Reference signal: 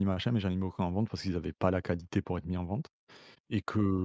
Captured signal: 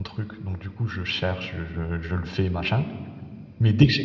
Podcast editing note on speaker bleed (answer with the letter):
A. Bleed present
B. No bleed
B